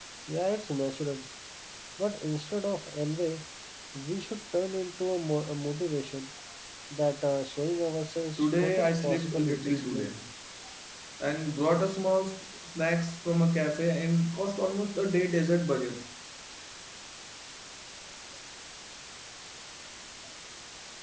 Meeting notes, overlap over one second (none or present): present